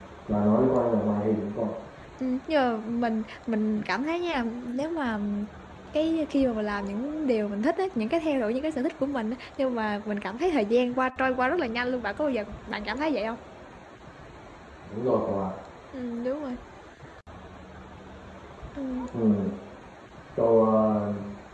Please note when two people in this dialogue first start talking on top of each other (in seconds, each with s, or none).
none